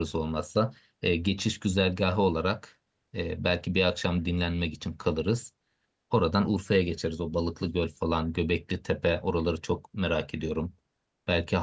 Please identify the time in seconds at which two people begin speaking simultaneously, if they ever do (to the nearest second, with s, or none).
none